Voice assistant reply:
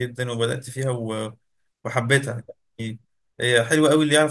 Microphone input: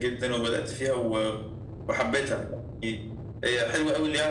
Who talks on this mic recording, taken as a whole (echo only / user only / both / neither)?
echo only